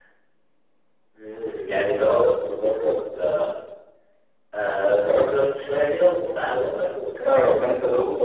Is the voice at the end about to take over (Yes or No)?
Yes